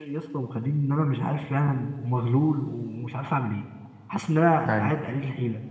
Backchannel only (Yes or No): Yes